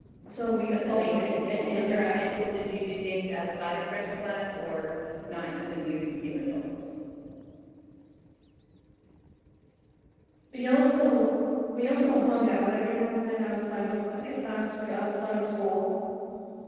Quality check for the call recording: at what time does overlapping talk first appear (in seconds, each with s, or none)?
0.7 s